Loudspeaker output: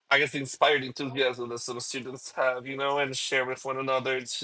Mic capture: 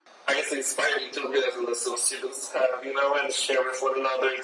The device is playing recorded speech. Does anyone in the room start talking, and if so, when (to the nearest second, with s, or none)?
none